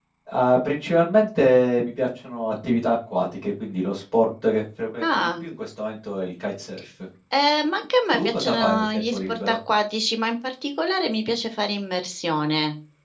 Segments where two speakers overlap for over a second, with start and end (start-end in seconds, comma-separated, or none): 8.1-9.6